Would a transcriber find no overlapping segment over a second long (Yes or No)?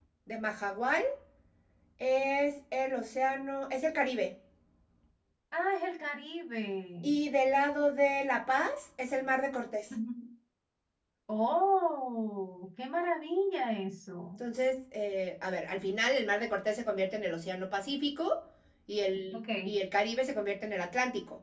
Yes